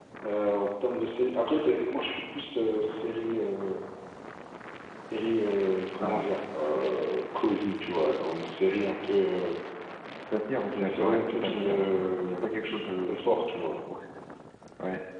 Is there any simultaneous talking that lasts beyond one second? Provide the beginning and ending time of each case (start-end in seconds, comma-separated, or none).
10.8-12.6